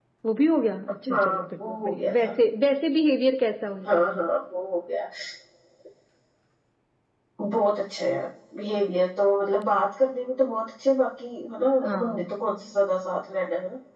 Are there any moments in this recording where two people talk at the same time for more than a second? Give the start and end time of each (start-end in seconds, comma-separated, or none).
1.1-2.3